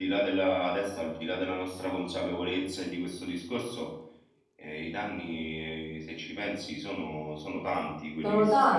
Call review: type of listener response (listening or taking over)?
taking over